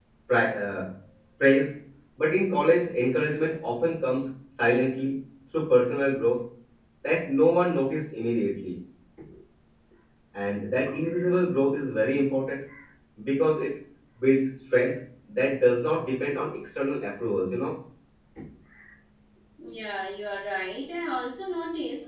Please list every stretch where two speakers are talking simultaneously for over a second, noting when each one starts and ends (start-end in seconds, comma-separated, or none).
none